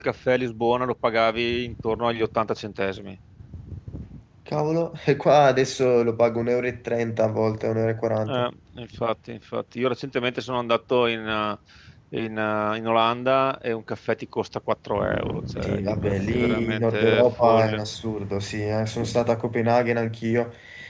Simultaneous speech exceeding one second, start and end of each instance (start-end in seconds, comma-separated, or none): 15.6-17.8